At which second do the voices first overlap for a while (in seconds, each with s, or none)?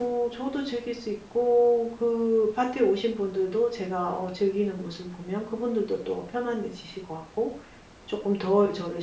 none